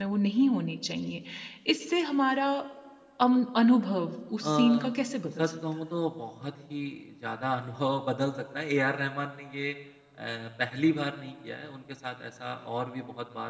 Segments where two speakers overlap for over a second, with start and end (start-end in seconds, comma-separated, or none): none